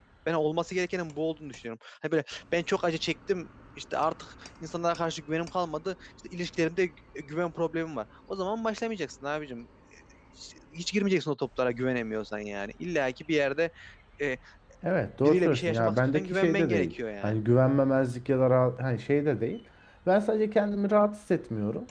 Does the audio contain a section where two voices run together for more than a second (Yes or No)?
Yes